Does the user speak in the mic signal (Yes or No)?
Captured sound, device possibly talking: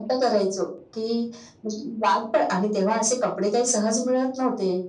No